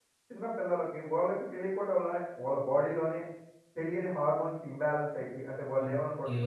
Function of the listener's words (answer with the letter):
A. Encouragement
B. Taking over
B